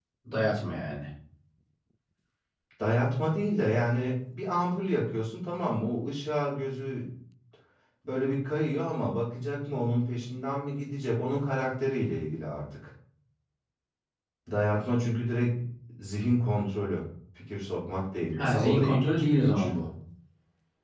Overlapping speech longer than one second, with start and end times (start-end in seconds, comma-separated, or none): 18.4-19.7